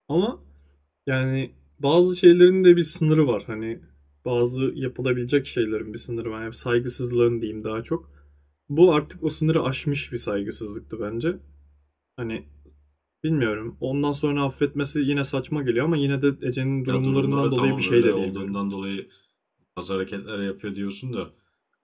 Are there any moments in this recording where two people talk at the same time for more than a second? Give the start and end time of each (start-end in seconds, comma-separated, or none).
16.9-18.6